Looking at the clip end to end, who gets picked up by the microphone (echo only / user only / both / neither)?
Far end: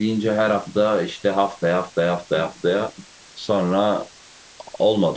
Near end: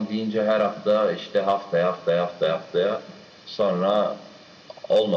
echo only